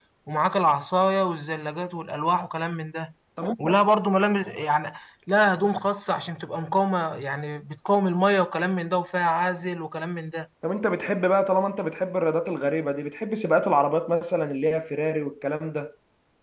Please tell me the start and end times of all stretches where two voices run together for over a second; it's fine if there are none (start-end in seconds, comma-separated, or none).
none